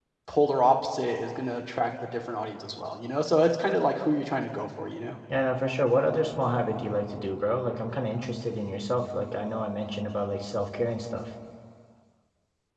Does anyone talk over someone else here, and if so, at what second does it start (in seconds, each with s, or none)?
none